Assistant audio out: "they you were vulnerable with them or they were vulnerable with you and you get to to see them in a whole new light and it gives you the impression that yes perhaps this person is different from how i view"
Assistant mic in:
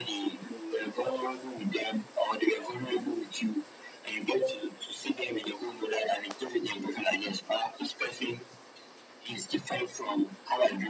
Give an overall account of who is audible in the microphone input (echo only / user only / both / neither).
echo only